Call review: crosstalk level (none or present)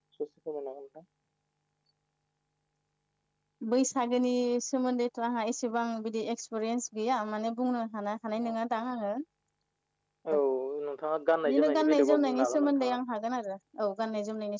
present